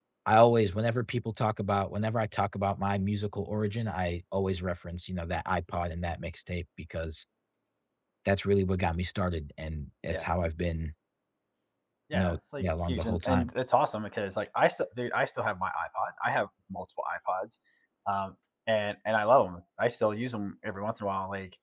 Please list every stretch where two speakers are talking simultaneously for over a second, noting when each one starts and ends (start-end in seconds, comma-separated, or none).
12.1-13.5